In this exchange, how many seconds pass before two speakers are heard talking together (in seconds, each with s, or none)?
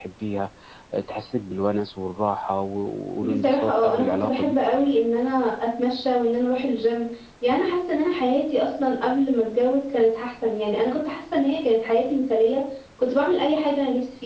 3.3 s